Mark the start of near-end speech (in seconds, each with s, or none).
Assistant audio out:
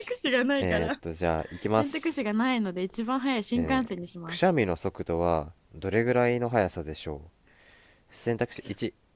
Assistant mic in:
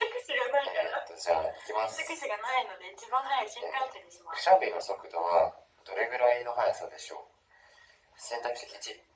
none